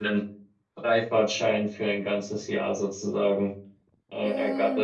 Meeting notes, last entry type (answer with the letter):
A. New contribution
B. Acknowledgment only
A